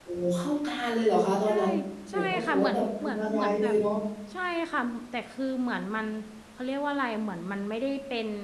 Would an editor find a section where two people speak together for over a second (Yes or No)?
Yes